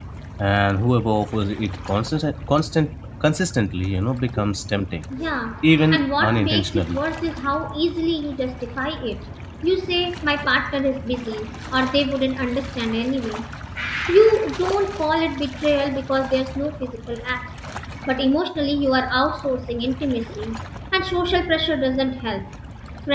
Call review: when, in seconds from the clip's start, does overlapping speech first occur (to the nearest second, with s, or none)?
6 s